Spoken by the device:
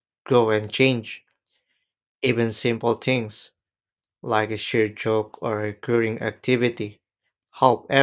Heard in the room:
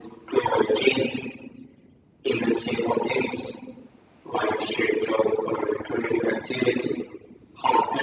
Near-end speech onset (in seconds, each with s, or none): none